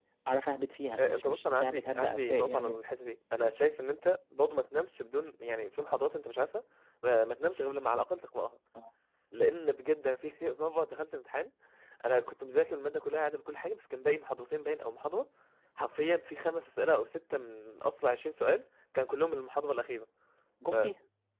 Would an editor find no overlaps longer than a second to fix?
No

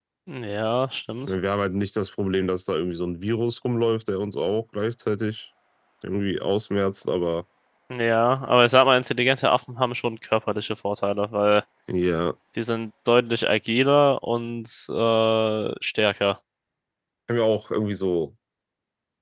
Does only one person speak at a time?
Yes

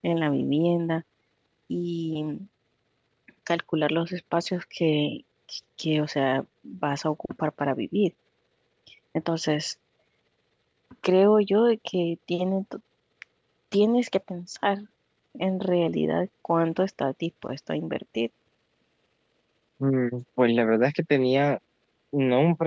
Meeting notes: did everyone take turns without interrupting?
Yes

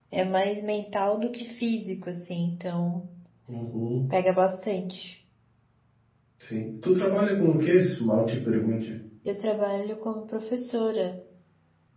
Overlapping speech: No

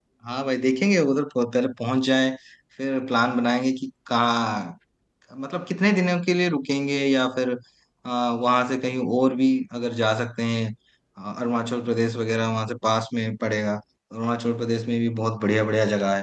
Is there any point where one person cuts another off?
No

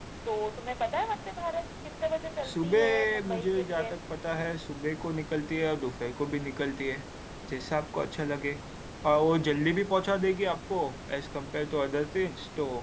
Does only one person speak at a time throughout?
No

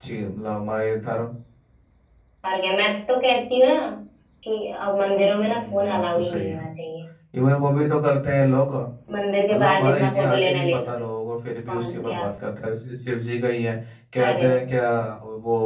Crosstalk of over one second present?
Yes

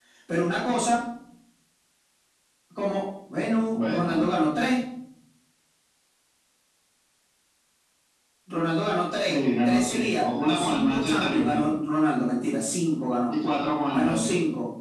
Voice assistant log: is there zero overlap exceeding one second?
No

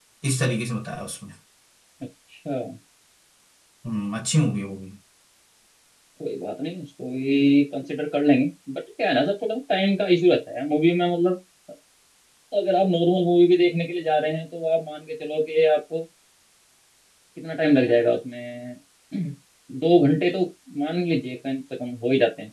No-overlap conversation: Yes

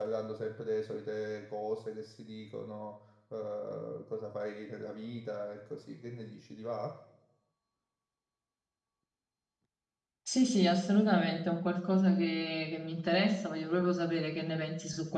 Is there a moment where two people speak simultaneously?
No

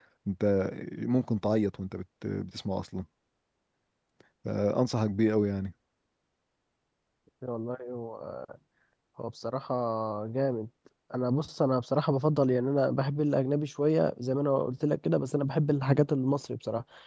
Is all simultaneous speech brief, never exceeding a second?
Yes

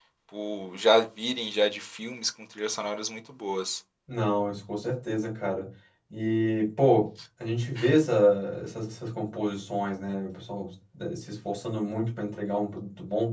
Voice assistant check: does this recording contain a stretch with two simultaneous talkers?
No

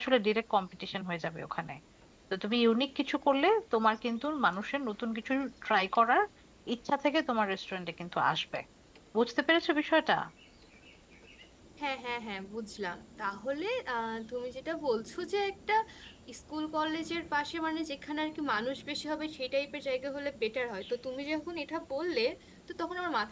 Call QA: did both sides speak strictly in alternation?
Yes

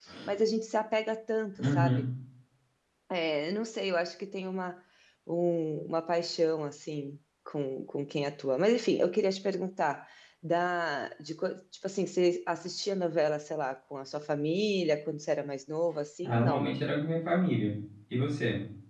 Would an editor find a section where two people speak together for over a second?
No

